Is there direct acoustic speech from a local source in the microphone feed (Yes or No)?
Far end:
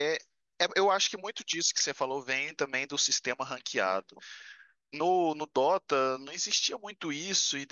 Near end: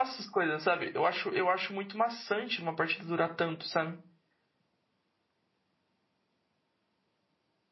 Yes